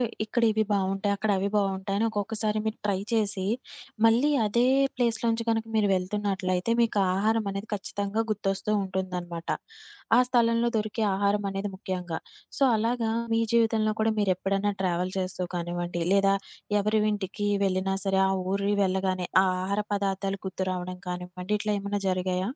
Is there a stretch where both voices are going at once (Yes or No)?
No